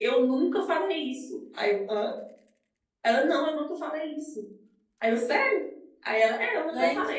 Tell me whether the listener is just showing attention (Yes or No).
No